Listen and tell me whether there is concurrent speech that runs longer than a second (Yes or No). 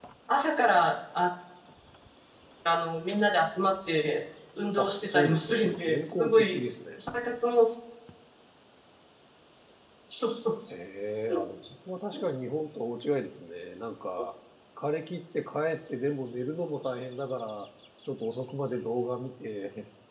Yes